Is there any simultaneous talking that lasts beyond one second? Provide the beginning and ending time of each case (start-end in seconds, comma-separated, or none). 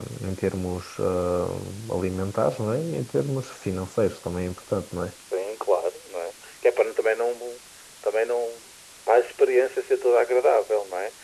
none